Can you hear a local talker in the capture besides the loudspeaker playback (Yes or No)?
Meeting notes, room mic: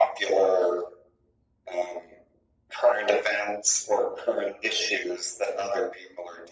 No